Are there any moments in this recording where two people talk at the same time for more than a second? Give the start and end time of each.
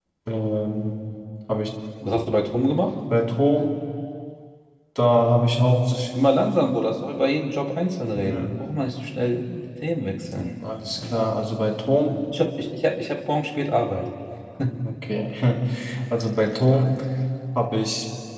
none

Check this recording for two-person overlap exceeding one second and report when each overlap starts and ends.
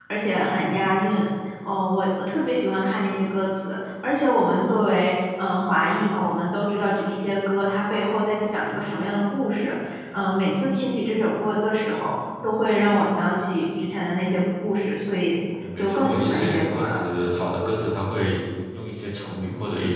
15.8-17.0

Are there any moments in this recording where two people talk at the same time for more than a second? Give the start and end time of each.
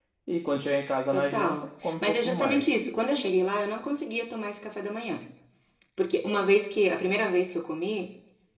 1.1-2.6

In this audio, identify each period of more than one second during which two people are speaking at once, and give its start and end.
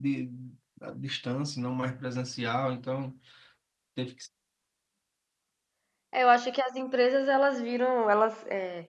none

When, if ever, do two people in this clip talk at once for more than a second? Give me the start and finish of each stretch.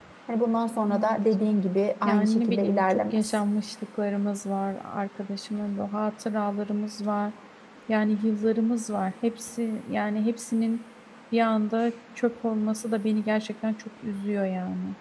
2.0-3.4

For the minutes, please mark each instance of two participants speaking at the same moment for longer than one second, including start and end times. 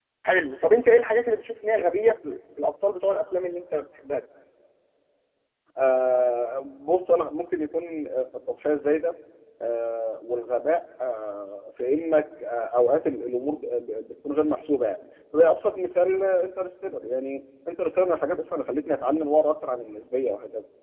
none

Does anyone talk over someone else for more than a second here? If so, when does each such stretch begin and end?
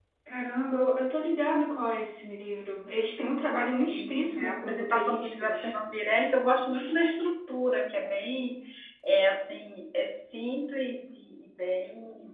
3.6-5.7

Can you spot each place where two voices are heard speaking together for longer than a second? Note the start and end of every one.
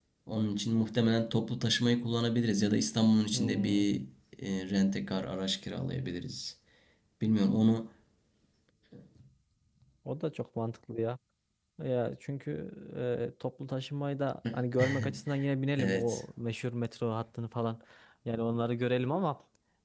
none

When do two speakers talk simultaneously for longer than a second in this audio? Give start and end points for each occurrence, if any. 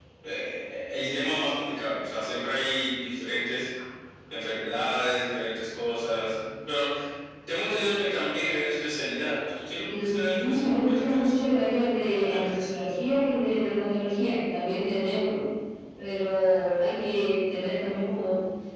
9.9-11.3

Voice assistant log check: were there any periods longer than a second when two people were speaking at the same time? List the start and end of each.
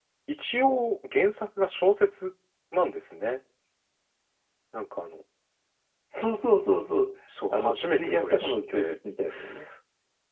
7.5-9.0

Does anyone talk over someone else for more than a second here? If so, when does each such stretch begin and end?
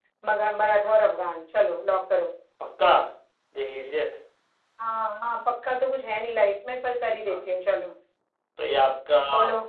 none

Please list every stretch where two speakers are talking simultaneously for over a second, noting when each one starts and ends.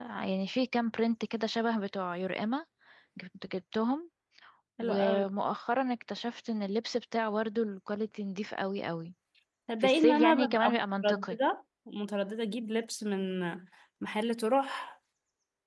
9.8-11.4

